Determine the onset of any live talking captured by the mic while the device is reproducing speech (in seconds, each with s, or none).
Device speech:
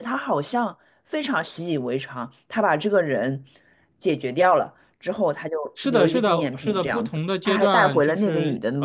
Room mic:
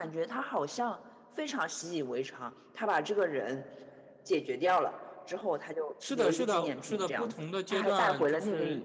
none